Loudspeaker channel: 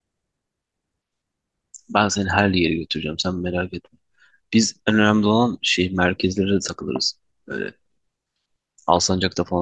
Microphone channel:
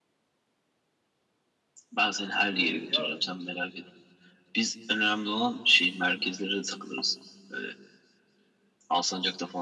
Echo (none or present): present